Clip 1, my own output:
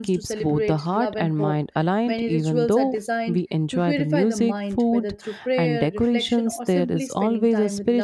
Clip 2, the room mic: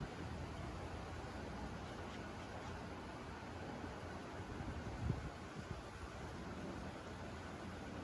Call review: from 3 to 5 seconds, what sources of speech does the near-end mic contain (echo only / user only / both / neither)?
neither